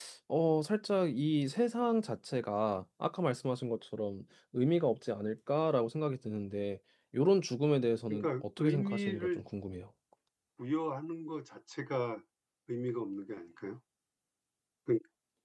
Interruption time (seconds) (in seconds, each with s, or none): 8.1 s